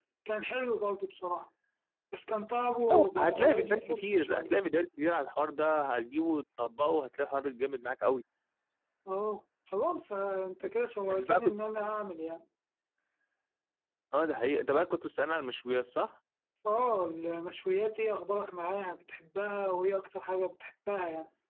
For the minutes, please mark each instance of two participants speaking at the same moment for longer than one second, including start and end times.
2.9-4.5

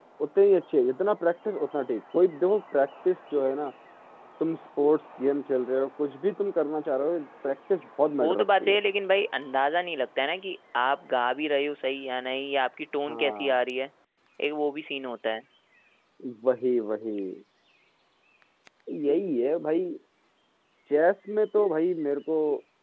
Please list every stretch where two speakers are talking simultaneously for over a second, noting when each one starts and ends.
none

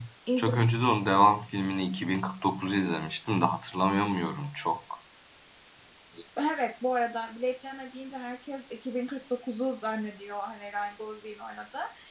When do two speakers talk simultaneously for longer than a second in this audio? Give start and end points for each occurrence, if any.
none

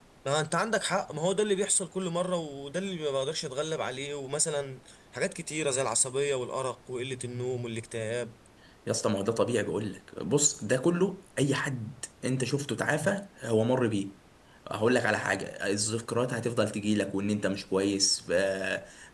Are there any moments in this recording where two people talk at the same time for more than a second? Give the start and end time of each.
none

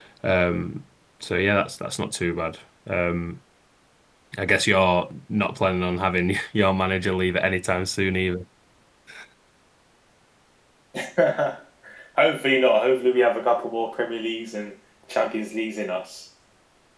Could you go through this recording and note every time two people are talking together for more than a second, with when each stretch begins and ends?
none

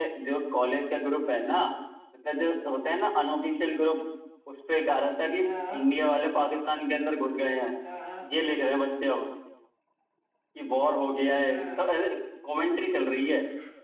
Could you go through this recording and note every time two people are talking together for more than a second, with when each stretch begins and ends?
none

